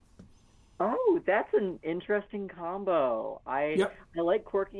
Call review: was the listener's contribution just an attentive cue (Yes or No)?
Yes